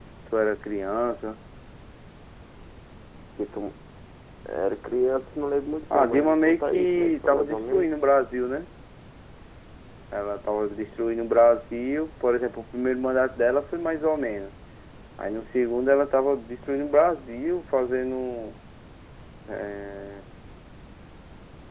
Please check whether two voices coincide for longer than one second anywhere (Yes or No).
Yes